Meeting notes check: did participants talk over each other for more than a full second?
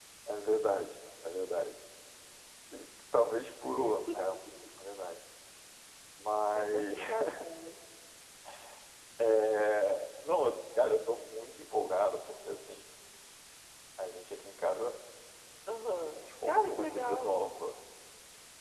Yes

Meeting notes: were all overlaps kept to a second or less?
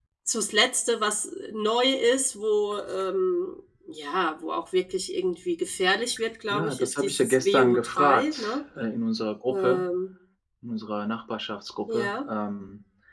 No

